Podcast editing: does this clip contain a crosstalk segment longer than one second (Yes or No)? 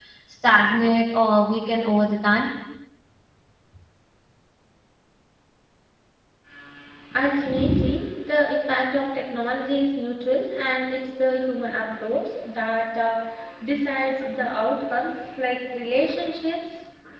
No